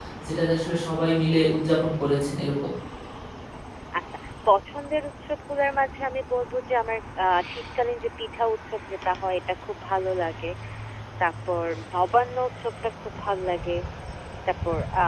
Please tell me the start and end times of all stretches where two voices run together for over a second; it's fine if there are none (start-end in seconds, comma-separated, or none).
none